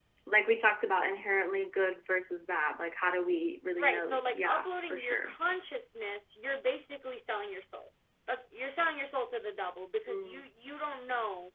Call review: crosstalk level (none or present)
present